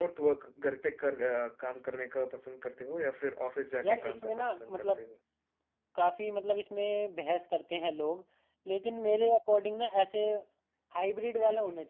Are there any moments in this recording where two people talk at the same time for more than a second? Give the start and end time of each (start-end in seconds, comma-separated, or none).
3.8-5.1